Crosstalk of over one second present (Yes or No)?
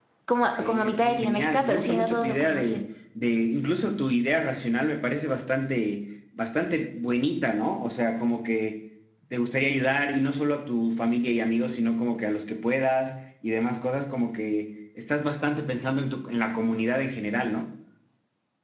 Yes